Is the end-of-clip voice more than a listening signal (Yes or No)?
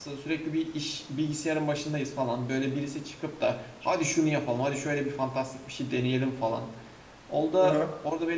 No